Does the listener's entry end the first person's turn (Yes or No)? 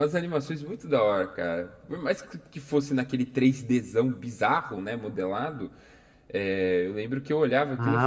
Yes